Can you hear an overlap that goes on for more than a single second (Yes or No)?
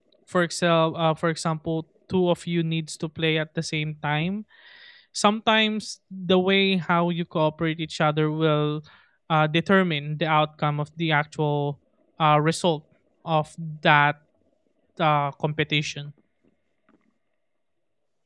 No